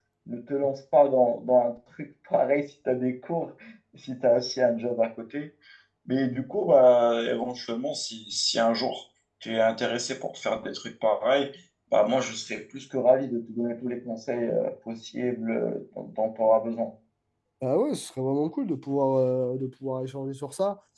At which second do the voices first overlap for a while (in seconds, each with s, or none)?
none